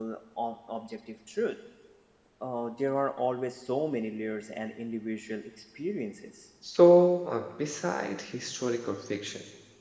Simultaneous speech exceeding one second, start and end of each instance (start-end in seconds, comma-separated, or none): none